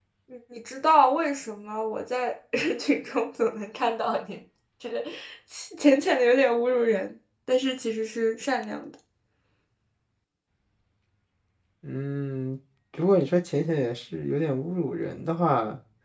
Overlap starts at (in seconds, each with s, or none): none